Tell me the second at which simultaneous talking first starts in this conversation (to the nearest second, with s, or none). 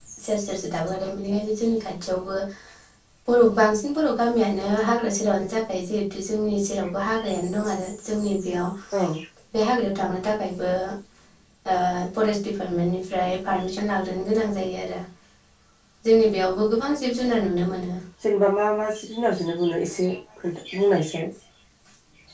none